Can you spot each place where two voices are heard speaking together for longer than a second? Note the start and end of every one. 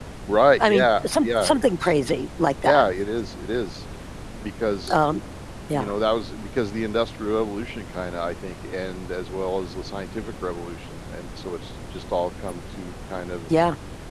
0.6-1.9

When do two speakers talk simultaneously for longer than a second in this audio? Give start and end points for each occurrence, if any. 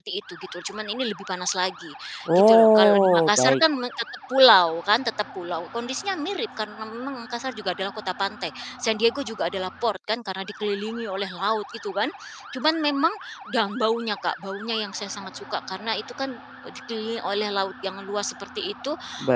2.4-3.6

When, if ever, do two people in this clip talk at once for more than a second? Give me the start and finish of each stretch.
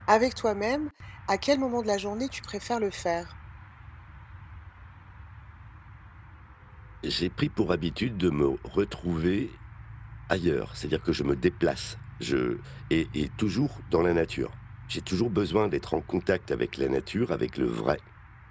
none

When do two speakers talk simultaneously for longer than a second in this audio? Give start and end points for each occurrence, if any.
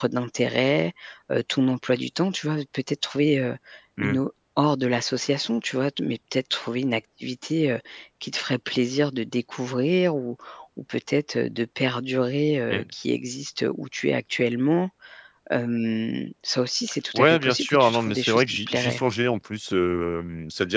17.1-19.0

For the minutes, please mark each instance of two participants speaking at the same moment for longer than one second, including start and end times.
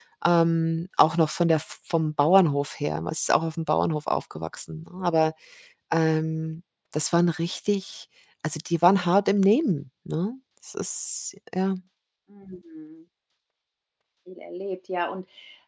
none

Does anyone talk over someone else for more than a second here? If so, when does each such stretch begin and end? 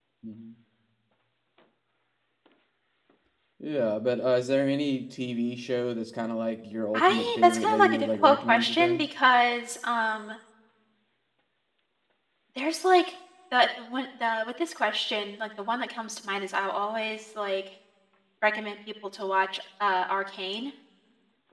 6.9-9.0

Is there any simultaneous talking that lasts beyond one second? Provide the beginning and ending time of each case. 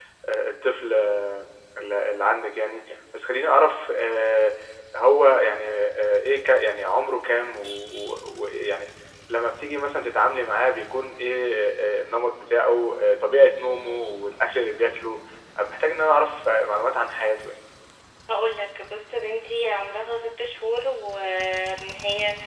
none

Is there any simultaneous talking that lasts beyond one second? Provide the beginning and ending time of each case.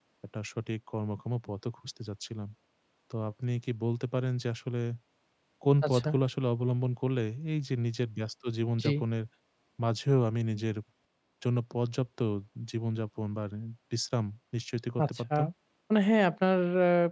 none

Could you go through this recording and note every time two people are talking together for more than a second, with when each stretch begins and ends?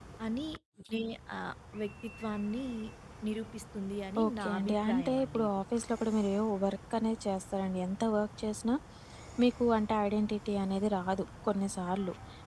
4.2-5.6

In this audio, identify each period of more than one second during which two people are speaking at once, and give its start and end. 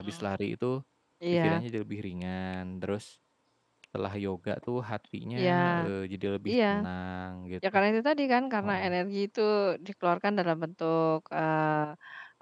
none

